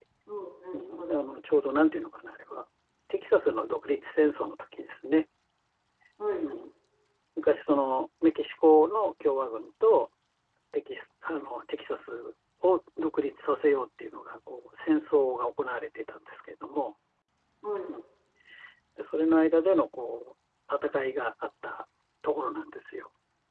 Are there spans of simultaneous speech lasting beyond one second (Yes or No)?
No